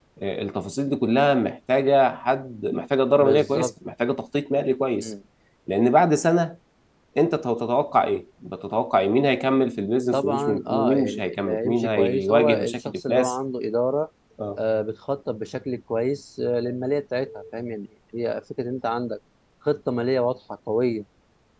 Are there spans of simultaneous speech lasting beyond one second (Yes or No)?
Yes